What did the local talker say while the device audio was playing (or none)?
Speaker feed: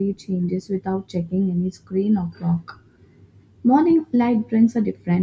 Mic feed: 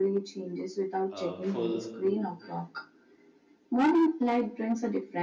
a full